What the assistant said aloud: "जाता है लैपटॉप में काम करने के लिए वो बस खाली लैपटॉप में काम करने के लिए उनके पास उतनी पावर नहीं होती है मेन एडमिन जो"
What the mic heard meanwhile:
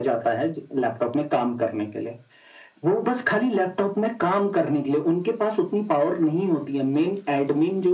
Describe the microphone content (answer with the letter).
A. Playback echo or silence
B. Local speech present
A